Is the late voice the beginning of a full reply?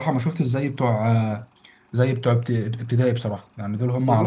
Yes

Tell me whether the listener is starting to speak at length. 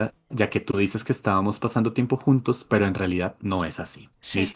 No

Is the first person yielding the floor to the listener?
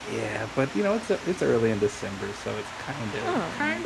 Yes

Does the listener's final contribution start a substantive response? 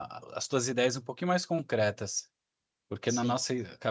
No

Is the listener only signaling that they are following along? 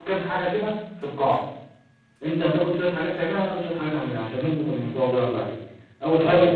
Yes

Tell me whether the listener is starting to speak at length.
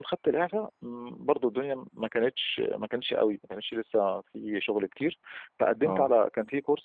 No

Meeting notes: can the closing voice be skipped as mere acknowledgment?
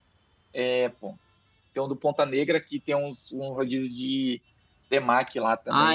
No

